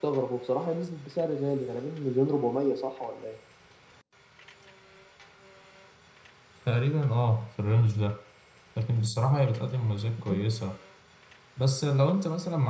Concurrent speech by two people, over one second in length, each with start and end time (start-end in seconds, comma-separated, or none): none